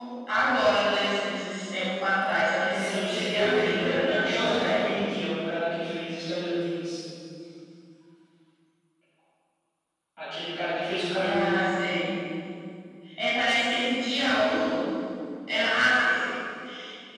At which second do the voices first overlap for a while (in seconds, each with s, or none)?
2.7 s